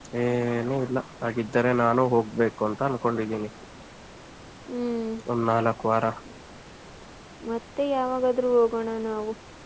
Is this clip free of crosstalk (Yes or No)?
Yes